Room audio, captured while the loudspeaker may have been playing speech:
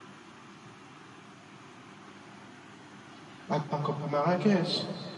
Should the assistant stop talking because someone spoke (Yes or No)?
Yes